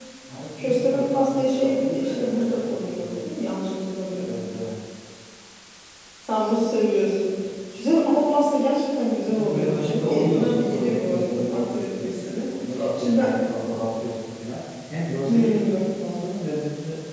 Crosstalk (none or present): present